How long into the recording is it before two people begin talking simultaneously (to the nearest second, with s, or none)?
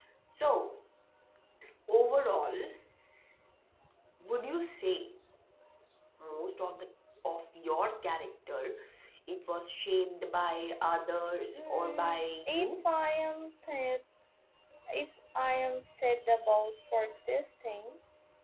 12 s